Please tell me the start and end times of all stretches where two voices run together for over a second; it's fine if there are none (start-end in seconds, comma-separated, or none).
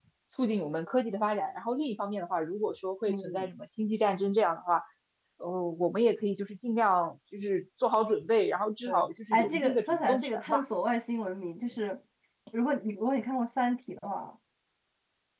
9.3-10.6